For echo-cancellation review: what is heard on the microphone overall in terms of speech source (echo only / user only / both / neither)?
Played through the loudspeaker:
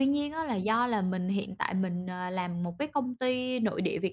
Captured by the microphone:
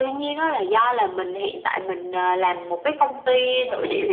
echo only